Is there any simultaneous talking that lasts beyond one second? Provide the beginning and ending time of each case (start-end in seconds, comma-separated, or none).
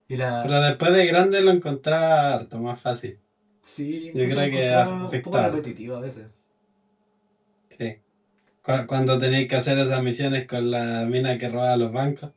4.1-5.6